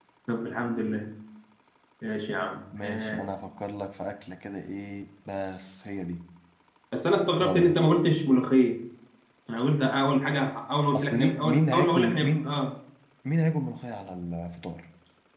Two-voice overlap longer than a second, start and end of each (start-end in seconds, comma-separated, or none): 10.9-12.5